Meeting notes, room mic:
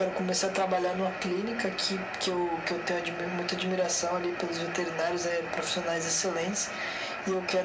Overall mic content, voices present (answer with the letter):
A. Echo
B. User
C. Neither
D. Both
A